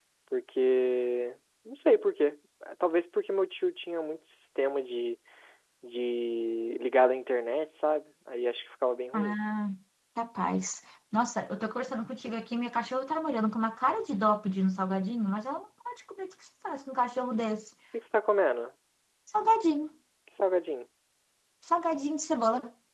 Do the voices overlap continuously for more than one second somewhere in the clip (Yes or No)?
No